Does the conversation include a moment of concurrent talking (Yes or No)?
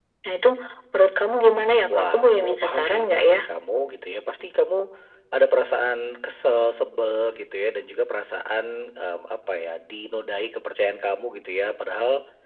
Yes